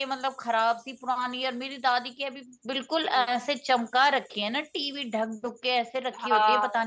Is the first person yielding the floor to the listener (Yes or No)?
Yes